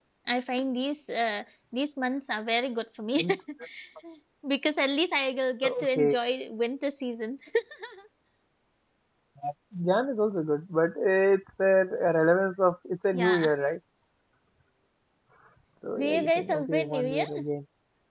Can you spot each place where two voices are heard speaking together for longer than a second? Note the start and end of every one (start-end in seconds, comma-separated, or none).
16.0-17.3